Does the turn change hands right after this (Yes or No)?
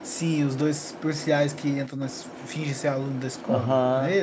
Yes